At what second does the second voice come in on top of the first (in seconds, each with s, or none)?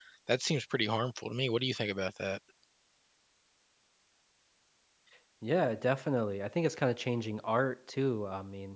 none